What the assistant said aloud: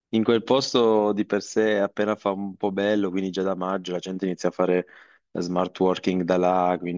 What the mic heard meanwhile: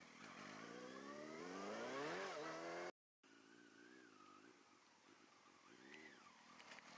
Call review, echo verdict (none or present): none